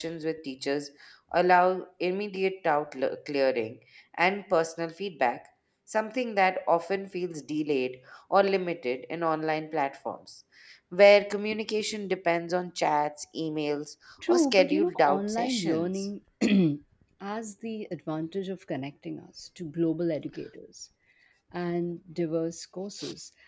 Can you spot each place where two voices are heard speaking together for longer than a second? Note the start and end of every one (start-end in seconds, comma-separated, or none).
14.3-16.1